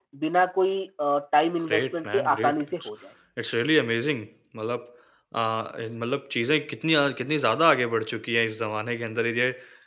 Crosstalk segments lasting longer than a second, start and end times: 1.7-2.9

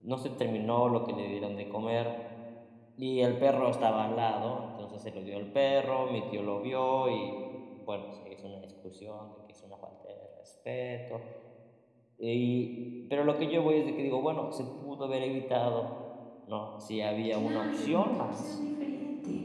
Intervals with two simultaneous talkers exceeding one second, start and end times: 17.3-18.6

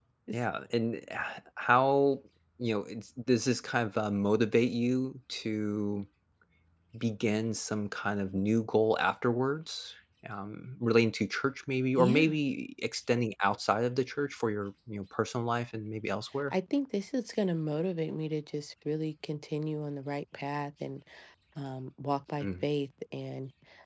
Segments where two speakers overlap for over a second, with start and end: none

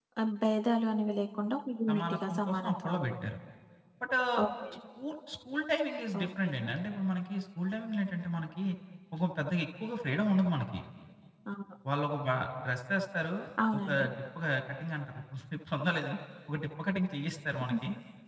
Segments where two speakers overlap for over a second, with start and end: 1.9-3.1

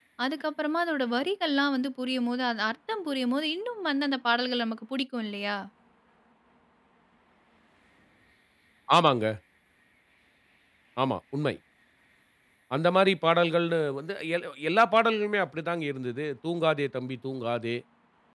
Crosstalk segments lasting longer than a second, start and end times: none

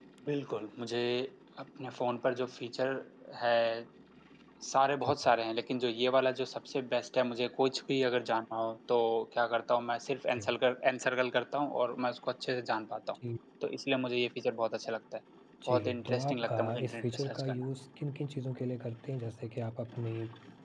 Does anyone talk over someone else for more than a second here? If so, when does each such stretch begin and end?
15.7-17.6

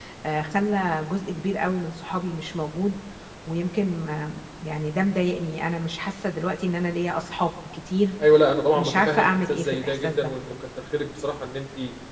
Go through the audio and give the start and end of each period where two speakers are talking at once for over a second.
8.7-10.3

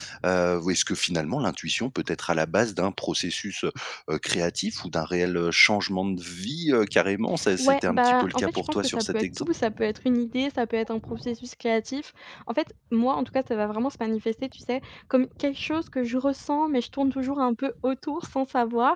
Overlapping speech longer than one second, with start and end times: 7.6-9.5

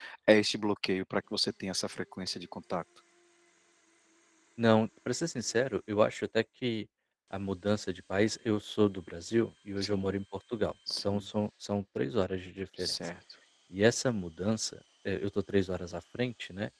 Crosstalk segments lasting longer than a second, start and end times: none

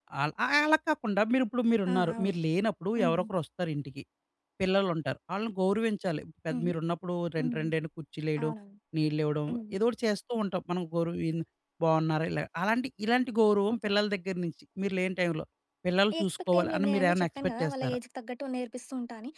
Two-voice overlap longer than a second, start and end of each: 16.2-18.0

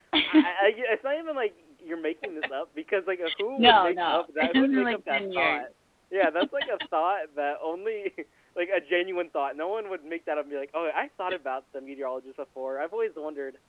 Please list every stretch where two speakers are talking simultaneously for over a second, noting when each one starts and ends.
3.6-5.6

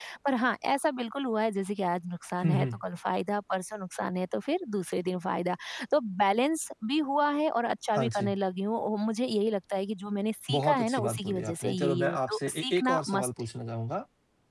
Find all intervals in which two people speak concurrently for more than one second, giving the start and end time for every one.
10.5-13.3

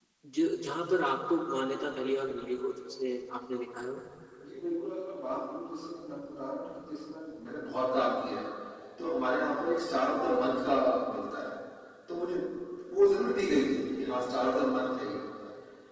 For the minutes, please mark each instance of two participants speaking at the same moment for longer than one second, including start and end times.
none

